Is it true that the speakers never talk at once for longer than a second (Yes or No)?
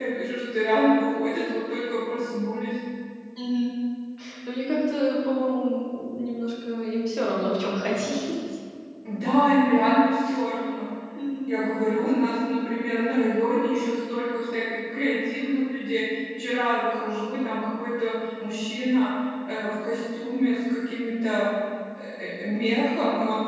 Yes